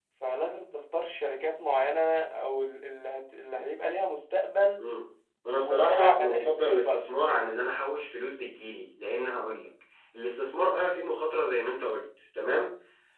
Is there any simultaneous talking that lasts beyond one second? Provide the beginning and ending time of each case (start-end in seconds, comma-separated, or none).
5.5-7.0